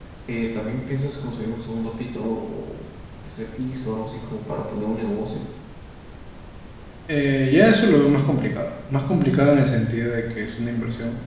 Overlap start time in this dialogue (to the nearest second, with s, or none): none